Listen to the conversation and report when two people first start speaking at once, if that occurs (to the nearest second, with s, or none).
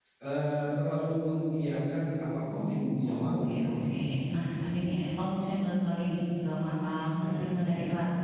3 s